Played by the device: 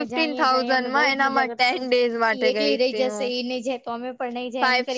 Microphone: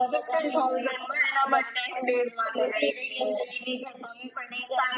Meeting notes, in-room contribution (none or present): none